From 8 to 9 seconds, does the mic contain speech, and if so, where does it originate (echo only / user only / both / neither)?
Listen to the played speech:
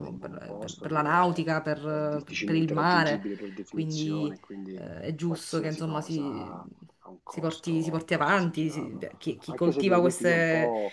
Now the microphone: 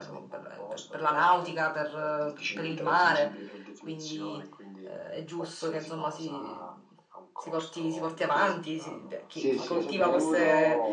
both